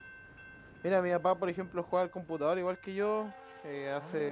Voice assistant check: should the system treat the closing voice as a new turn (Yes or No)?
No